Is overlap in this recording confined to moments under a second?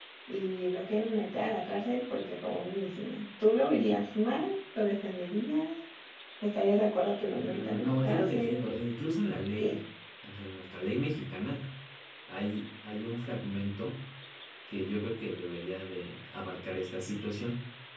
No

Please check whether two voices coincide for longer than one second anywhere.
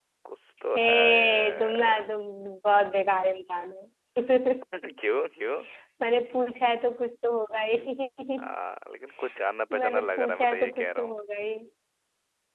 Yes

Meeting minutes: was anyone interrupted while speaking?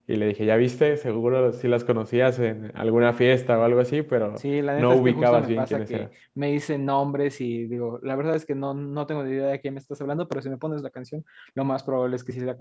Yes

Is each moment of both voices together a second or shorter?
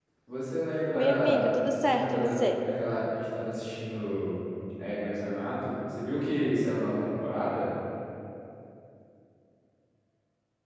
No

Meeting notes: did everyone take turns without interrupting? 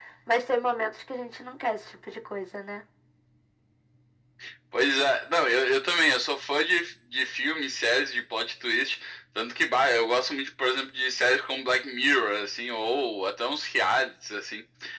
Yes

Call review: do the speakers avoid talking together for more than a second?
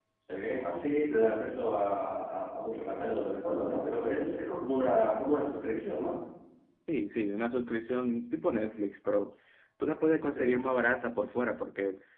Yes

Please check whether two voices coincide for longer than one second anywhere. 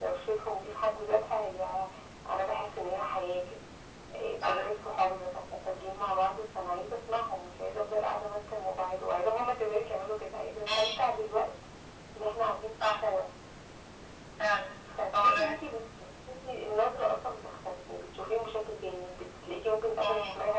No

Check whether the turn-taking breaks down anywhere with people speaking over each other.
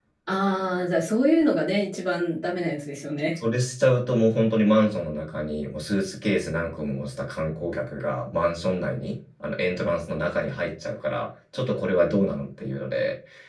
No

